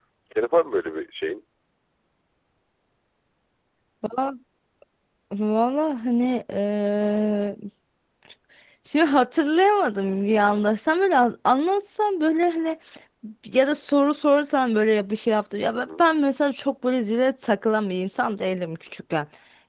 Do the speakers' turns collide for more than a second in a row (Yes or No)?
No